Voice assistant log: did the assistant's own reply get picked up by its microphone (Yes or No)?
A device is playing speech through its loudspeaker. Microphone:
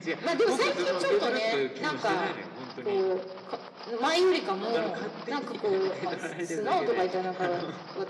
Yes